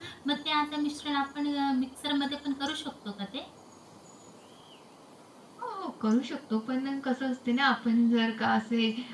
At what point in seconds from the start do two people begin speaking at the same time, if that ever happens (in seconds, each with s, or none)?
none